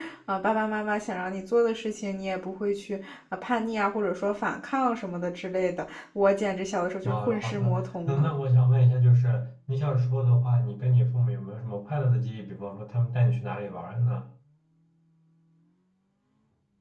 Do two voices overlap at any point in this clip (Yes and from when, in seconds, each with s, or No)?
Yes, from 7.0 s